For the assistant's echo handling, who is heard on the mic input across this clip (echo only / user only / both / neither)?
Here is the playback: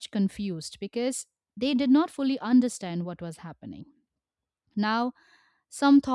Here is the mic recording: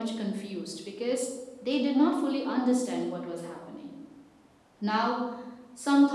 echo only